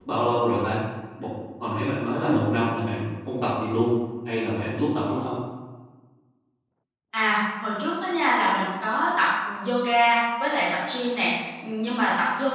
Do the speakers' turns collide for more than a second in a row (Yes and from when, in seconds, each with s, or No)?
No